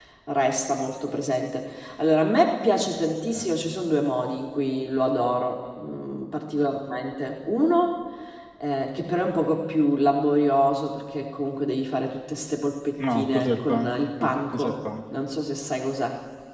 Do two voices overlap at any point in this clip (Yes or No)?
Yes